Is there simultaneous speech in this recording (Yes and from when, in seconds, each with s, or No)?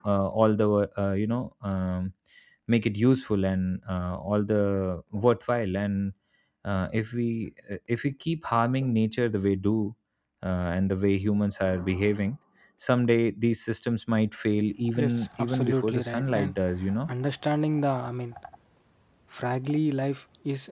Yes, from 14.8 s